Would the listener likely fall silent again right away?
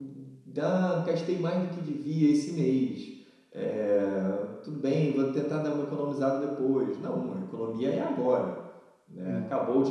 Yes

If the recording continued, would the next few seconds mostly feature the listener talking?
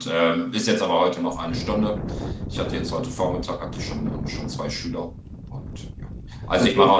No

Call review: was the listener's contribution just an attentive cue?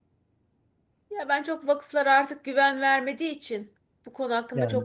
Yes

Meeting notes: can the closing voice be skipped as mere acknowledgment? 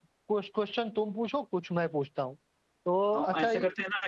No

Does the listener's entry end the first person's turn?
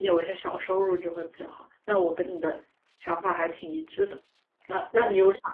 No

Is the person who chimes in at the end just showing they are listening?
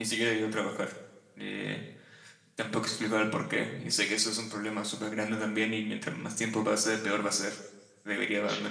Yes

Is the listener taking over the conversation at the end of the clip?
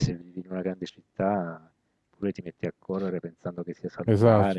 Yes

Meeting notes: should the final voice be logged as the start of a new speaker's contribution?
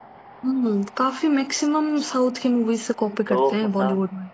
Yes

